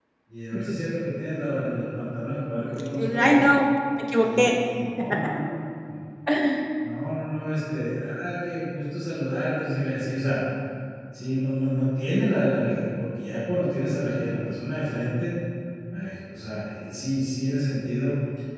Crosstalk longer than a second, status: none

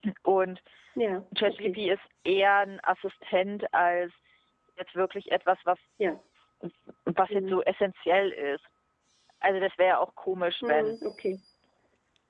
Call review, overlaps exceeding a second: none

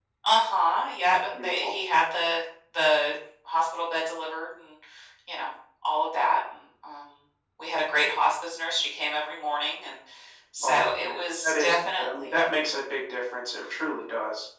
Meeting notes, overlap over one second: present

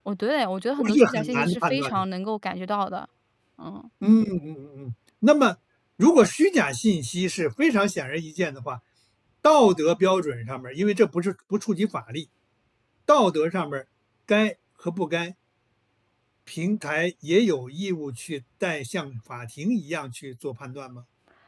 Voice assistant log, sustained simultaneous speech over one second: present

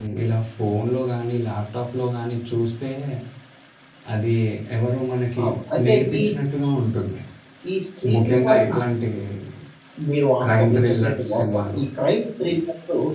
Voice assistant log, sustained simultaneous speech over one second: present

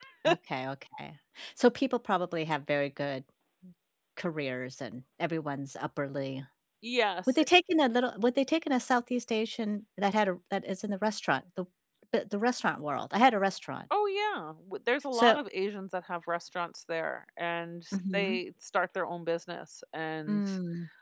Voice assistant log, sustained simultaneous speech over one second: none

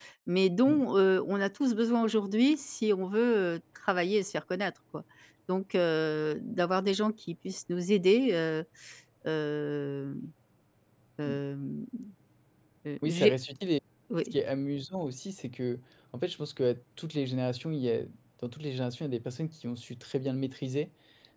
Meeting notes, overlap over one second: none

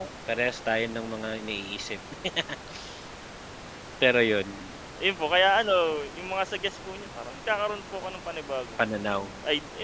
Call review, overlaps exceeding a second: none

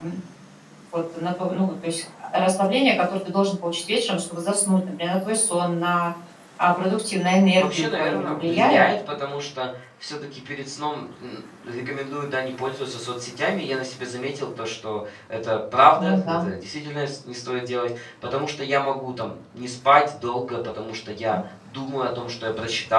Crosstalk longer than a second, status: present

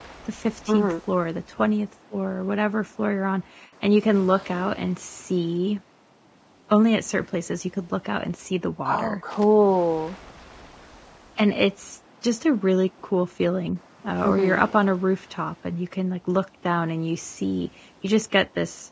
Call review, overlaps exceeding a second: none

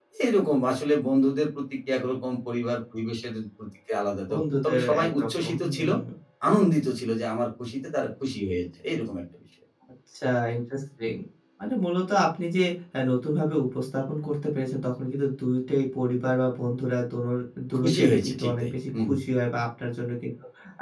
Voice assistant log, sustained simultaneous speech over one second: present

